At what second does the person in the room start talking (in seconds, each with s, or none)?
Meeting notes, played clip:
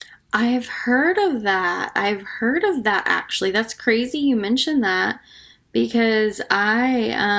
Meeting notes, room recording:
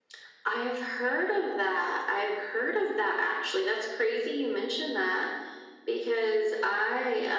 none